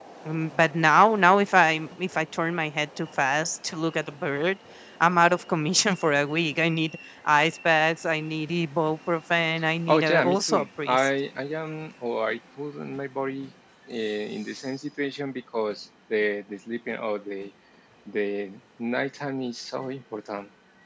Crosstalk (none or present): present